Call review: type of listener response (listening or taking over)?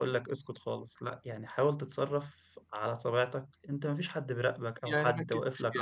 taking over